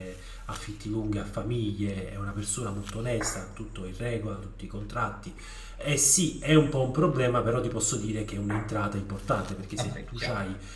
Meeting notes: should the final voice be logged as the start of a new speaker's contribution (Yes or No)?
No